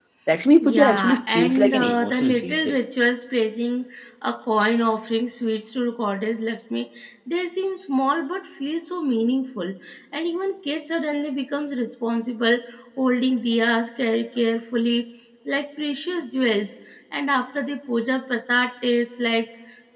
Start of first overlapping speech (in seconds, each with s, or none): 0.6 s